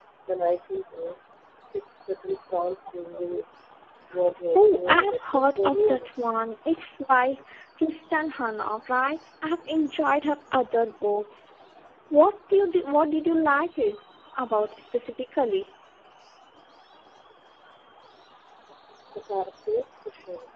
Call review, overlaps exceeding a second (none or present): present